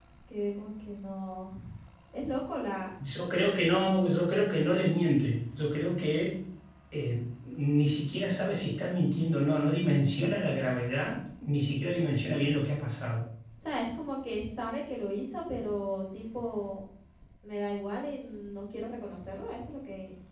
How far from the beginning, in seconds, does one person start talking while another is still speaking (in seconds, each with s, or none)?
none